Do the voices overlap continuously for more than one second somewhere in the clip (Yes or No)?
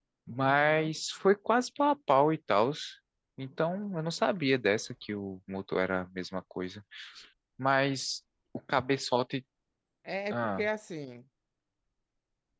No